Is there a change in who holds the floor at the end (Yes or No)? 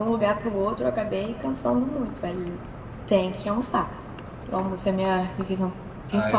Yes